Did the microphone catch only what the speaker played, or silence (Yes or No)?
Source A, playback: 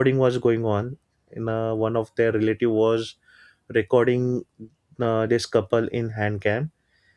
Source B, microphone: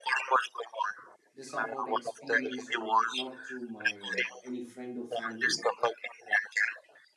No